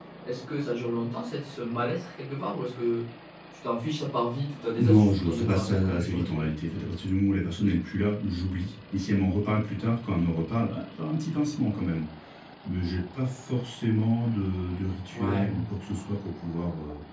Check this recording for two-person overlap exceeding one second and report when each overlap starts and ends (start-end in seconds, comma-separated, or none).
4.8-6.4